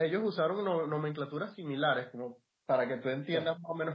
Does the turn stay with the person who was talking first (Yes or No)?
Yes